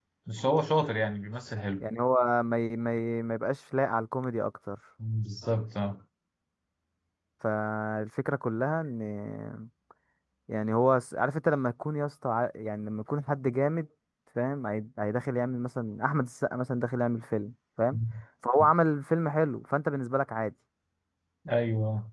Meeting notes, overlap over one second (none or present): none